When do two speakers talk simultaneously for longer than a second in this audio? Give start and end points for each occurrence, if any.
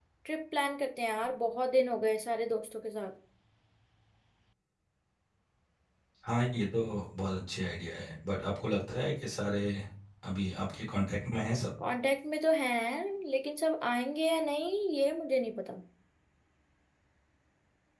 none

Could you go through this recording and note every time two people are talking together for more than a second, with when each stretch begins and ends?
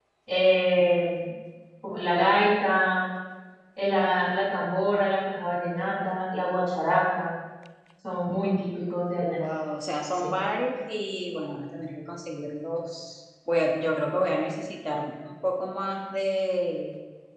none

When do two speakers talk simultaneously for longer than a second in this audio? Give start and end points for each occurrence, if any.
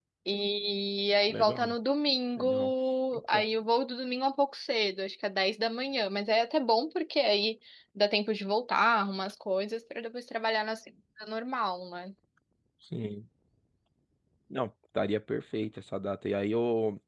none

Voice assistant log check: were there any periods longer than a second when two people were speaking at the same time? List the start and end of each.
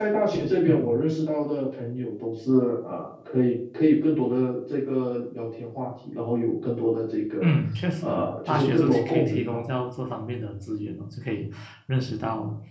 8.0-9.6

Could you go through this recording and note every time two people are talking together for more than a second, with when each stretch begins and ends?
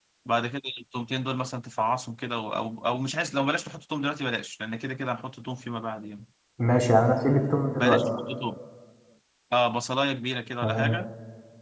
none

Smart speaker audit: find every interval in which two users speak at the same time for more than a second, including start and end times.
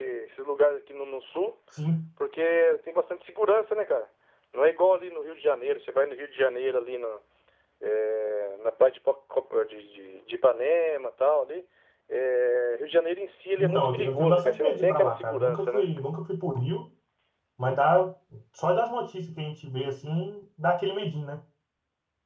13.6-15.9

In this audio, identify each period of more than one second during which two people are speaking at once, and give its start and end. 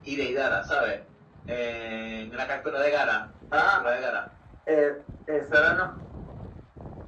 none

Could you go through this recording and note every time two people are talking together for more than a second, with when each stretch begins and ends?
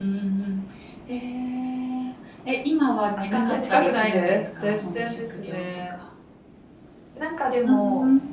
3.2-6.0

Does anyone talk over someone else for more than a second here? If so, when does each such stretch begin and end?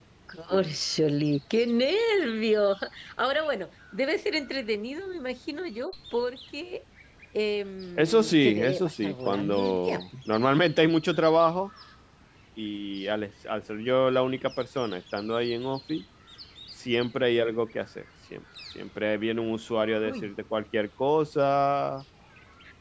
8.0-10.0

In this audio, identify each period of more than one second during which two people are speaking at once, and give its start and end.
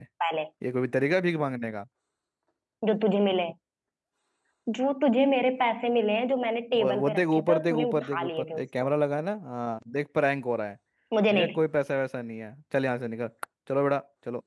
6.8-8.9

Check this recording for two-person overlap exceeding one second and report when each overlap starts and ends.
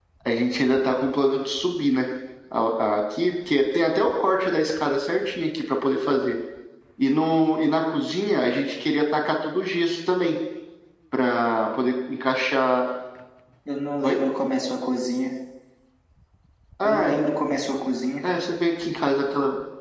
none

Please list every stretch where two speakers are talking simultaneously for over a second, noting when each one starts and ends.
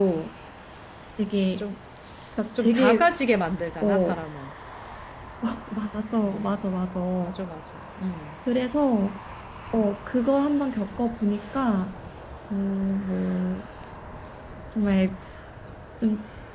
none

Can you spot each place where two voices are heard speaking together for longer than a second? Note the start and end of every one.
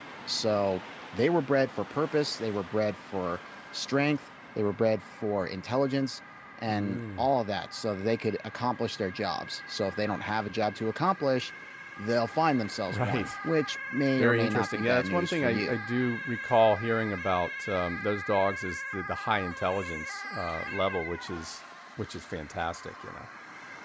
14.2-15.8

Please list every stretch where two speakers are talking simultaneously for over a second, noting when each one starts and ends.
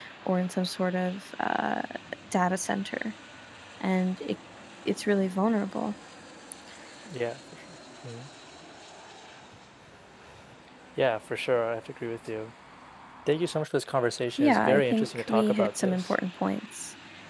14.4-16.1

